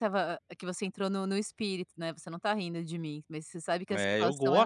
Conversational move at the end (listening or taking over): taking over